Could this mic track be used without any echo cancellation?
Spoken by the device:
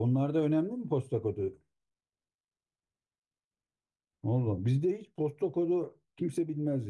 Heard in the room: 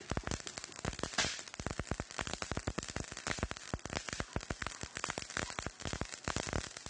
Yes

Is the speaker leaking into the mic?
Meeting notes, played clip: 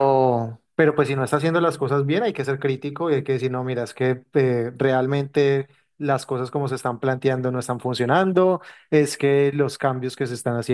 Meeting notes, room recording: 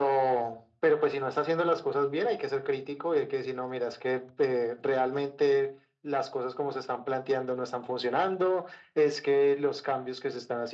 Yes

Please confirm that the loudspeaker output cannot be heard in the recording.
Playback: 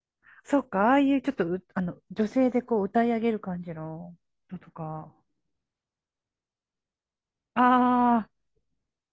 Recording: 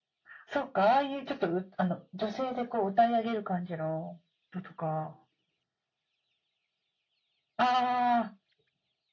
No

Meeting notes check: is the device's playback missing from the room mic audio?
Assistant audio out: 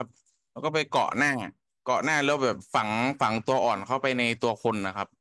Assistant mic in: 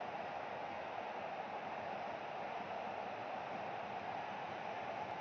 Yes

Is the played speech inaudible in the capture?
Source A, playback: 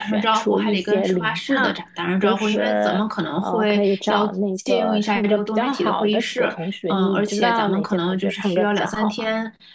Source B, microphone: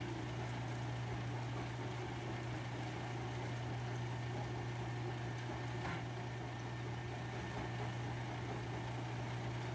Yes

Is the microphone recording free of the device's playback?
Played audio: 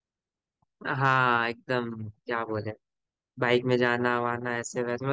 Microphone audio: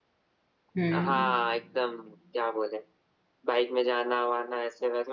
No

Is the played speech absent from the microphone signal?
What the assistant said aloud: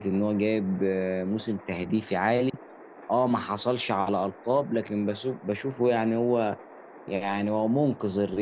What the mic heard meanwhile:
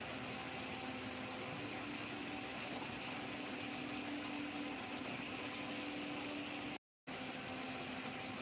Yes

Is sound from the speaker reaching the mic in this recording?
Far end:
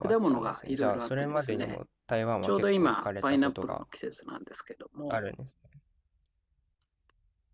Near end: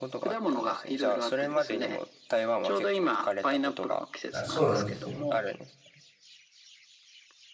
Yes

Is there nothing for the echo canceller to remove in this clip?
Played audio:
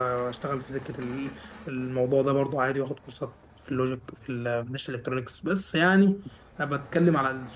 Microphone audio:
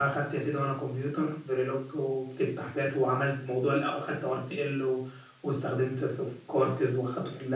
Yes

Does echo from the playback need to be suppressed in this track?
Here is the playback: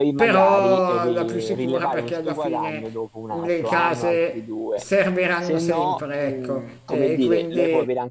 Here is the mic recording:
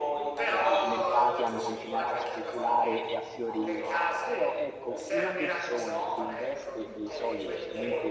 Yes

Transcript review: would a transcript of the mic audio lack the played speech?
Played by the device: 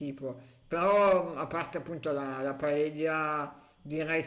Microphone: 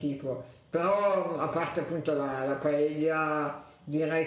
No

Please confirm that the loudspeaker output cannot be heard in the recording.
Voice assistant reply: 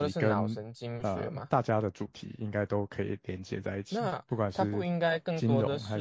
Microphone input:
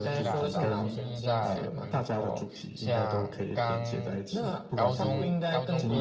No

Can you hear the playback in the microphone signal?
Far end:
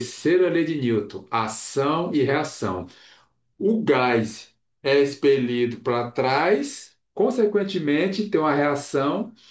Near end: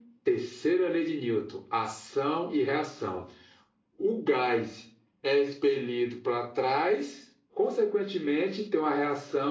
Yes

